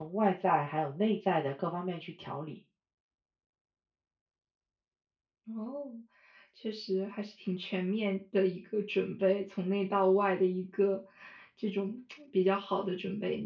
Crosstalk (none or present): none